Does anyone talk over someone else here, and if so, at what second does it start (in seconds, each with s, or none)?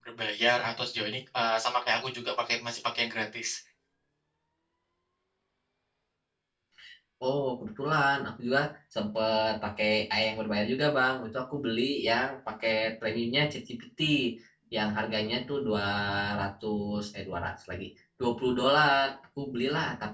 none